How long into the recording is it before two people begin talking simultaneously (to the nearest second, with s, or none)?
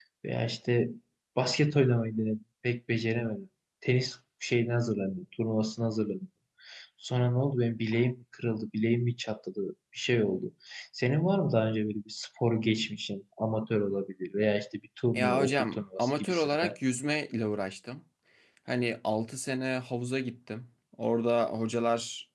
15 s